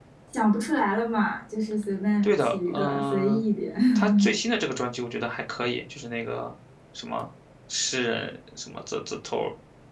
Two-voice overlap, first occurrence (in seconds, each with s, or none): 2.2 s